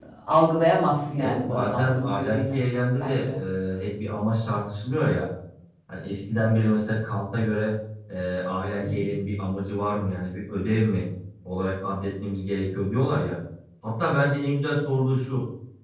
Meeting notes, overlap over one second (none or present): present